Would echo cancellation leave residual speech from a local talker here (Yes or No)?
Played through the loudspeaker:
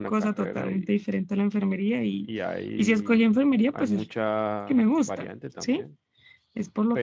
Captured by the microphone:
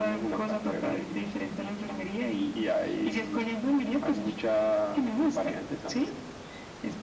No